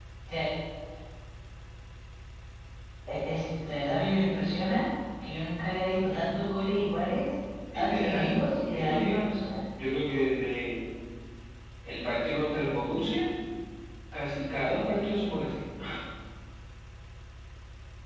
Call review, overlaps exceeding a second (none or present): present